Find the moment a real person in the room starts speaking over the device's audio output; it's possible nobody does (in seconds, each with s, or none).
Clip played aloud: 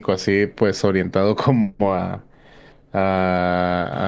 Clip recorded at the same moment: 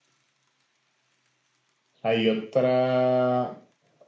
2.0 s